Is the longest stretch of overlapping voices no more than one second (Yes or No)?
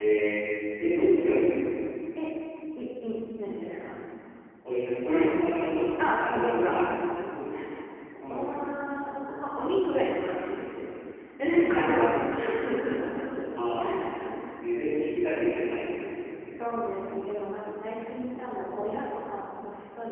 No